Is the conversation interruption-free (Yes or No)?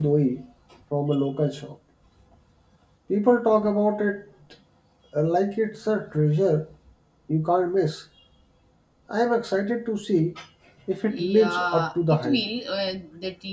No